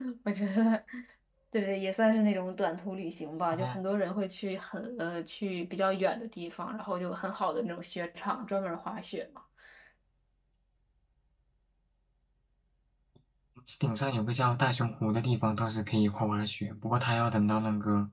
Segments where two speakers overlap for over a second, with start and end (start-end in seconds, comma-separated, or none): none